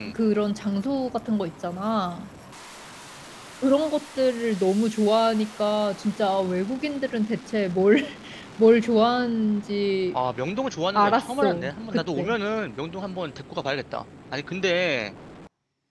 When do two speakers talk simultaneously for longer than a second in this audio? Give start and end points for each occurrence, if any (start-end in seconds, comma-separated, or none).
11.0-12.4